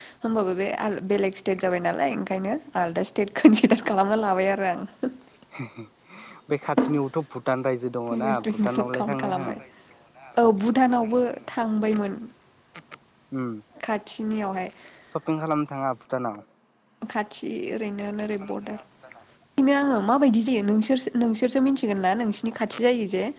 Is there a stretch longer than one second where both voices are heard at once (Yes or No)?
Yes